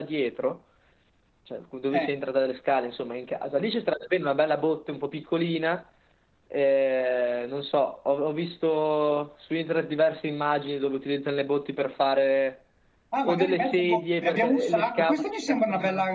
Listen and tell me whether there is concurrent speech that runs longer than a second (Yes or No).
Yes